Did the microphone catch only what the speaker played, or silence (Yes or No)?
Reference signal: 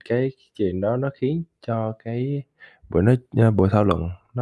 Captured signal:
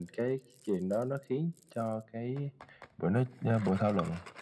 Yes